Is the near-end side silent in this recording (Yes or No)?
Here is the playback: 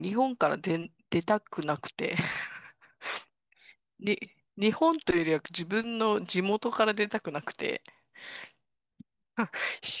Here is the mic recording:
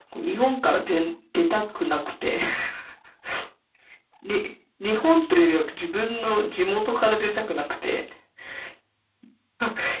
Yes